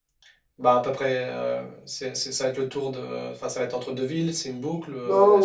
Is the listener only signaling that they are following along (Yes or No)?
No